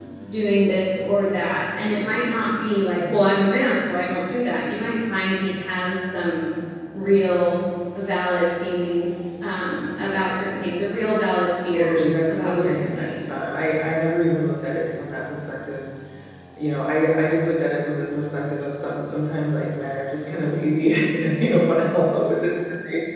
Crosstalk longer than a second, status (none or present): present